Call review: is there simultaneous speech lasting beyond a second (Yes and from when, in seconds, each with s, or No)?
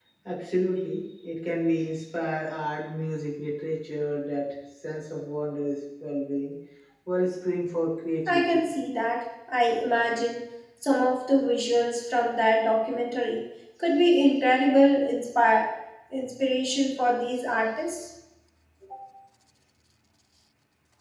No